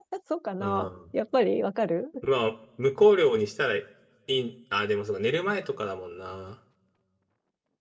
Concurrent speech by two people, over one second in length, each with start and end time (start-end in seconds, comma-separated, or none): none